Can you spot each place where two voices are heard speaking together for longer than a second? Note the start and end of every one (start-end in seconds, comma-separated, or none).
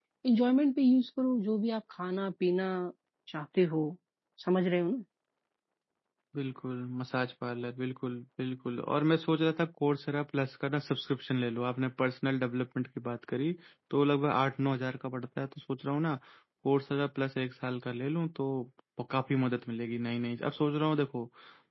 none